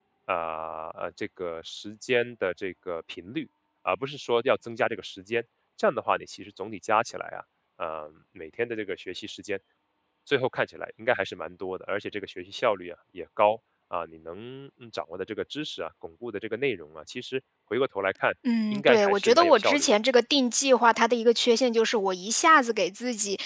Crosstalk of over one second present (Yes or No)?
Yes